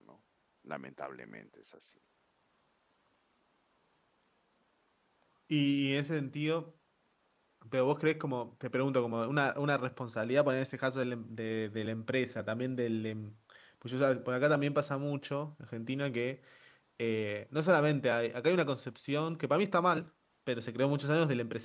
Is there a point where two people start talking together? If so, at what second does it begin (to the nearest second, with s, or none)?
none